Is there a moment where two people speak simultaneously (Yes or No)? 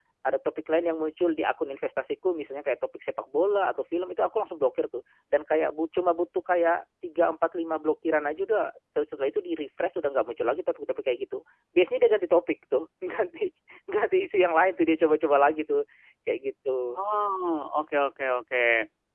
No